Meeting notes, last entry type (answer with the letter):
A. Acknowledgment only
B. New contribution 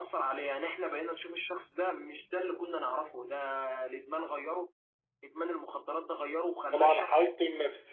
B